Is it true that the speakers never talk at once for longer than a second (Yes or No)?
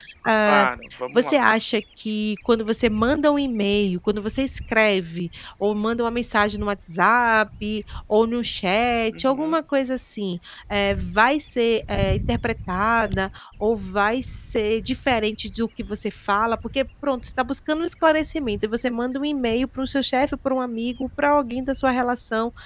Yes